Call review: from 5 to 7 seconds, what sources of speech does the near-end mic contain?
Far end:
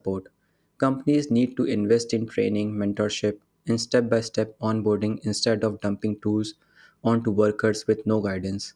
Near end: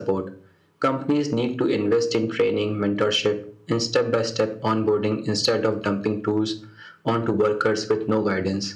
echo only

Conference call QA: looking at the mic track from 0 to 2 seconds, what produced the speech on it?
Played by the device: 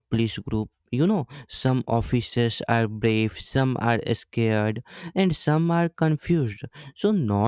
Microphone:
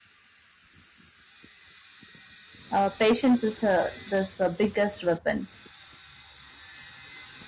neither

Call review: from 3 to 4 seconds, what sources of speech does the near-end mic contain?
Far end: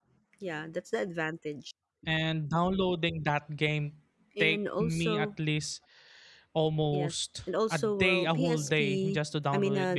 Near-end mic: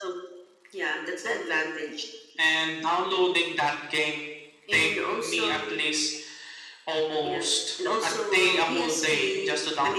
echo only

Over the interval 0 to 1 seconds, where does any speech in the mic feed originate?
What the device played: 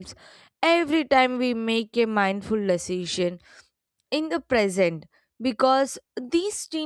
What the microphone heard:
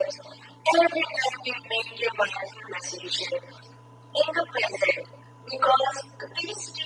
echo only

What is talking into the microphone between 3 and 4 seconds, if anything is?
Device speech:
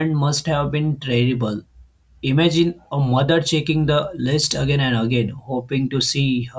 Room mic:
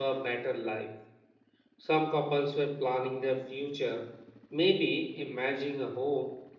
user only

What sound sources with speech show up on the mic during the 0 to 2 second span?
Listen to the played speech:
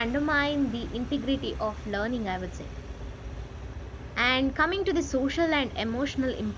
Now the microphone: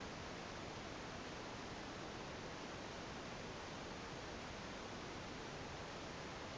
neither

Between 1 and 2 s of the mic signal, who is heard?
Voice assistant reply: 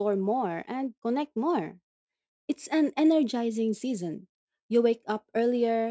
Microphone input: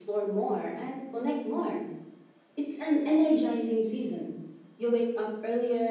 echo only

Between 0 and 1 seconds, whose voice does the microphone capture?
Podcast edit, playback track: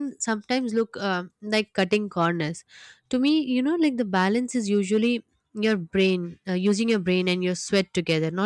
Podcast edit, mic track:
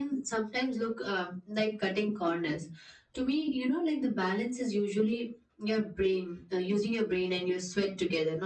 echo only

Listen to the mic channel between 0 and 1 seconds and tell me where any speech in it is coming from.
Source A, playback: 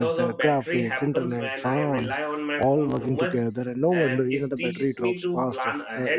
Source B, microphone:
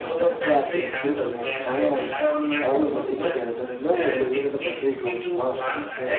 echo only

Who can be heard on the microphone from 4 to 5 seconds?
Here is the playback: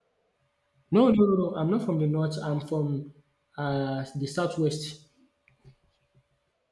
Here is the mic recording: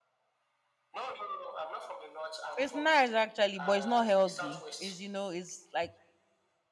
both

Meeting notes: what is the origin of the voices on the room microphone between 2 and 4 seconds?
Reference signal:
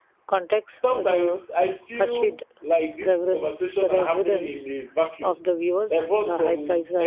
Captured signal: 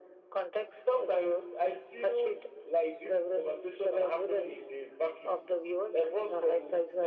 echo only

